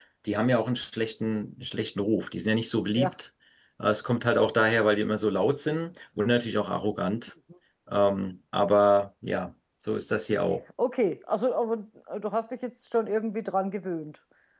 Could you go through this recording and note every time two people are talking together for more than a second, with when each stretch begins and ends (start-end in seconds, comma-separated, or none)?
none